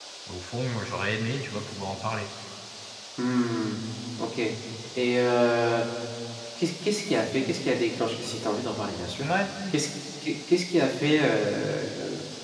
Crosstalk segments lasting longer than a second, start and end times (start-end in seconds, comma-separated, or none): none